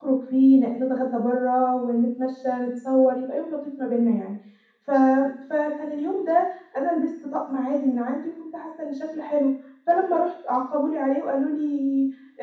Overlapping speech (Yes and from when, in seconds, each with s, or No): No